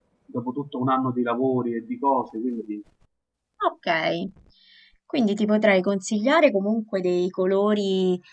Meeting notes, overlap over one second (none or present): none